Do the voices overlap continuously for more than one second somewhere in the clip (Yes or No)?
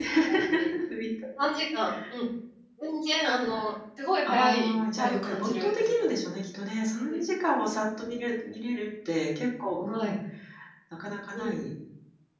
Yes